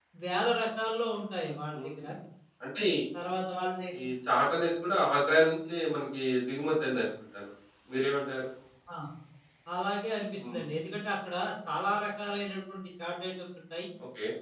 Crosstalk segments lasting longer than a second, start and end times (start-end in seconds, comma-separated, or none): none